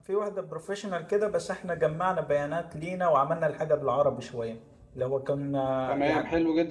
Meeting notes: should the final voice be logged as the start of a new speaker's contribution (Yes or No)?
Yes